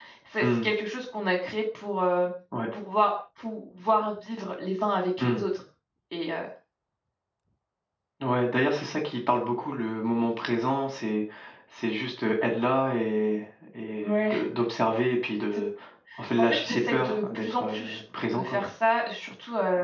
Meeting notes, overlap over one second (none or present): present